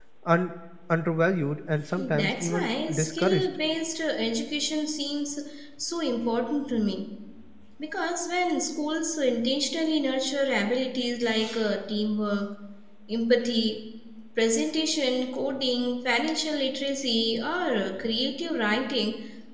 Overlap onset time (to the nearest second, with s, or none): 2 s